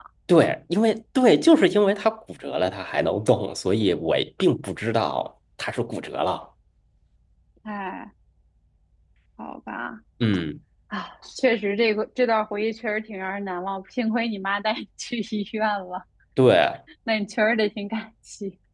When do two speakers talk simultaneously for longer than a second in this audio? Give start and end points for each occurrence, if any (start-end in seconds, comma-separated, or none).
none